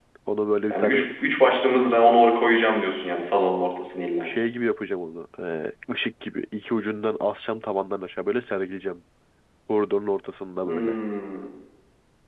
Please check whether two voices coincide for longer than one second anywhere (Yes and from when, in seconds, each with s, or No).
No